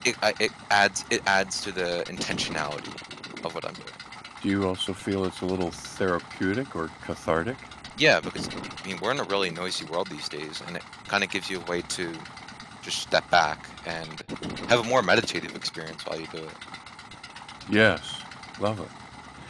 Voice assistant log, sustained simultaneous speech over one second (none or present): none